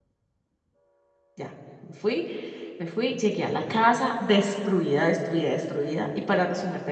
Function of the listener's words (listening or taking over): listening